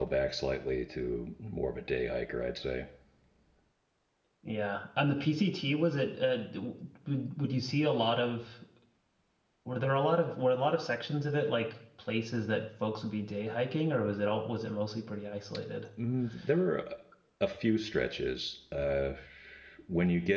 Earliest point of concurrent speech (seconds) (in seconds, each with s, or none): none